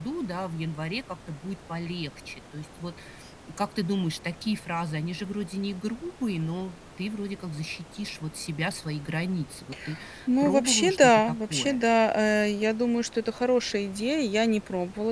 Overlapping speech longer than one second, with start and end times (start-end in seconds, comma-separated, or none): 10.4-11.8